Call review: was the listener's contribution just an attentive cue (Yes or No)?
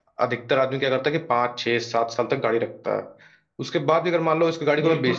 No